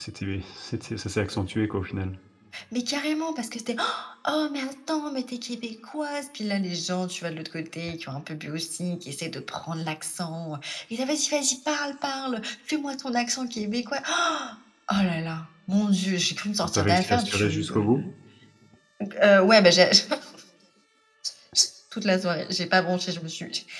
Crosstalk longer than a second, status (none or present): present